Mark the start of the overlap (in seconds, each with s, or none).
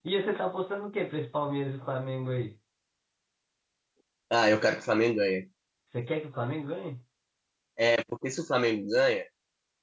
none